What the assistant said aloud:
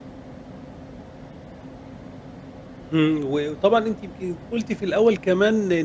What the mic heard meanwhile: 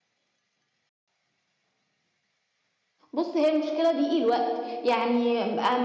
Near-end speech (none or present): present